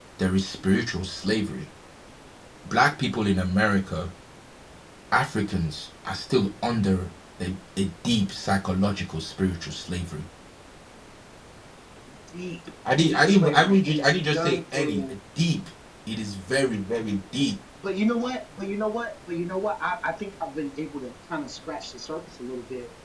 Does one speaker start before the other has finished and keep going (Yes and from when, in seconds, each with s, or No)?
Yes, from 13.0 s